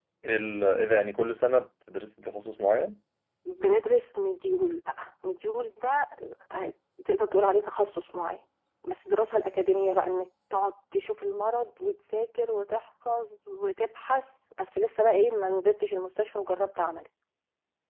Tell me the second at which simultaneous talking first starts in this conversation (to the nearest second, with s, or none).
none